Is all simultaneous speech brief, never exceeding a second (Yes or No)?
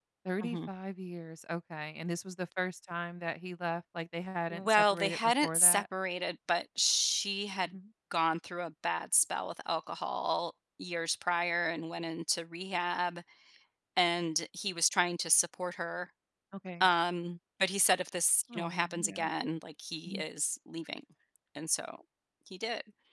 No